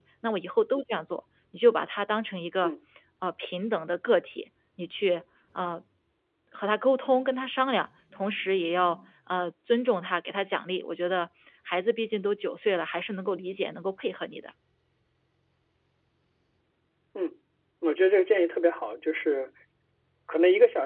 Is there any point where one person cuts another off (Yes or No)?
No